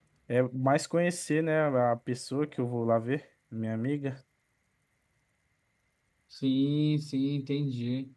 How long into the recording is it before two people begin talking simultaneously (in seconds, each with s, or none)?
none